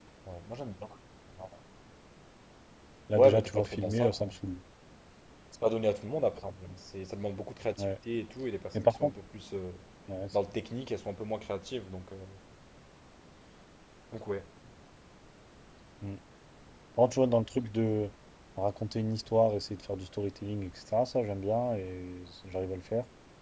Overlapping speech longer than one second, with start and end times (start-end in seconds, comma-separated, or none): 3.1-4.3